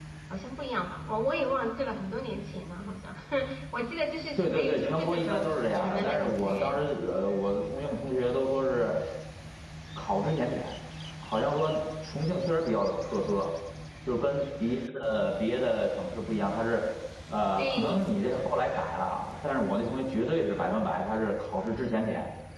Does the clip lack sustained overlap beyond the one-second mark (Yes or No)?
No